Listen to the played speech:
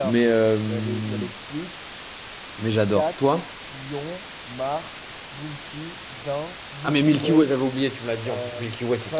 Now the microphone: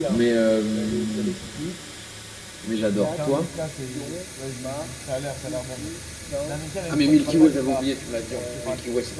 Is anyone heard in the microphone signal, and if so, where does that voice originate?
both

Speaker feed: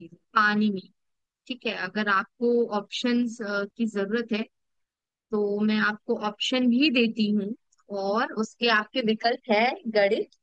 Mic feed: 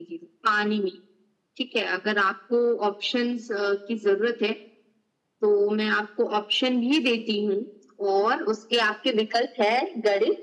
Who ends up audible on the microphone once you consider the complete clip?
echo only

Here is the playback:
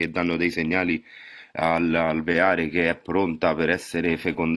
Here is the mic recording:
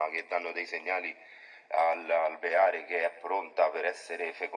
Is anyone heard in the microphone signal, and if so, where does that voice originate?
echo only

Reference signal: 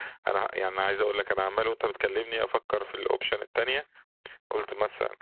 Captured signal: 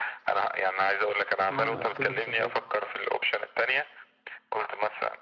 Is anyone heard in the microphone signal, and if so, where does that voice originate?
both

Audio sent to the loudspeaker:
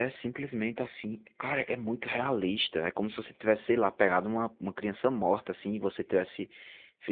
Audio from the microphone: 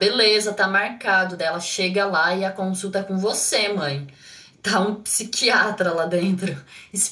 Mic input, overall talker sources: user only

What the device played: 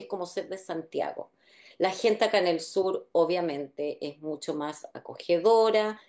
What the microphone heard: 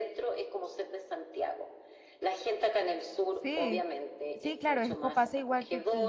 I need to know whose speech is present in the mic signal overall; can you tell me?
both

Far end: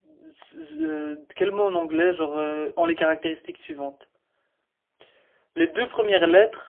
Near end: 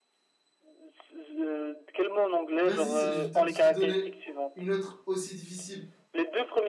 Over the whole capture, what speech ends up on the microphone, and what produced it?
both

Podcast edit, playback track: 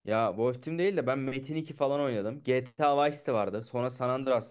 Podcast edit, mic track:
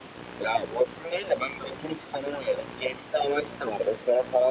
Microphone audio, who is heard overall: echo only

